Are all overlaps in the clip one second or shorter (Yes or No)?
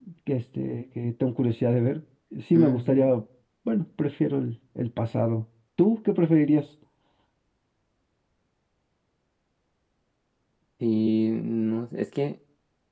Yes